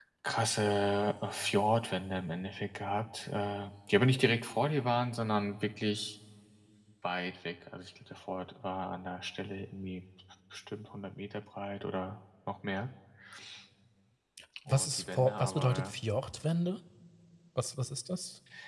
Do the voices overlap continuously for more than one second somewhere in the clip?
Yes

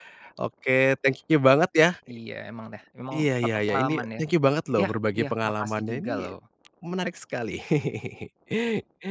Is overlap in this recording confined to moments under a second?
No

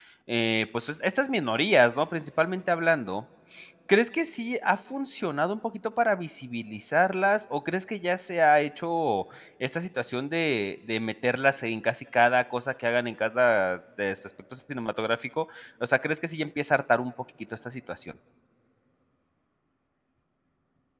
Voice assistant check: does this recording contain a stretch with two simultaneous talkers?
No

